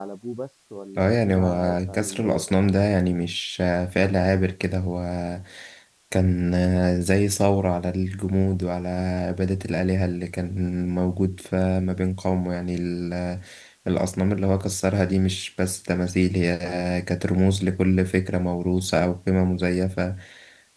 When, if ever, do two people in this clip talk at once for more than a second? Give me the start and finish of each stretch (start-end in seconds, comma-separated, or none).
1.0-2.5